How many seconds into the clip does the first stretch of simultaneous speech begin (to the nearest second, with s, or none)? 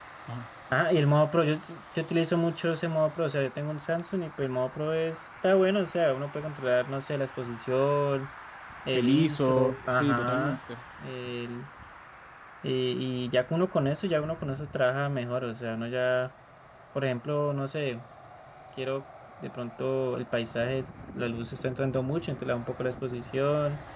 9 s